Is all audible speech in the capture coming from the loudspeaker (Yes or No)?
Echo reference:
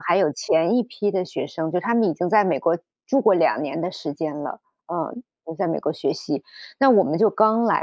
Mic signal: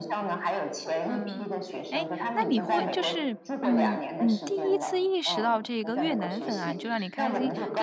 No